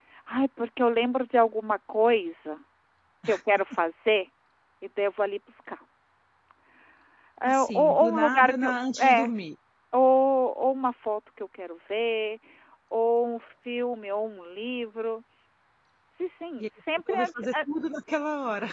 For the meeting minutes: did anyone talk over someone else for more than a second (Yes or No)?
Yes